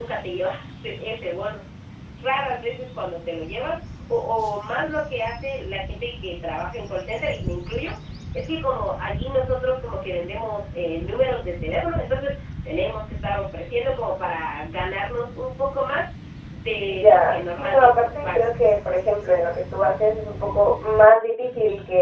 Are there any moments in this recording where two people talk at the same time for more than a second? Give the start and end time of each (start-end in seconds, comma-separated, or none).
16.9-18.5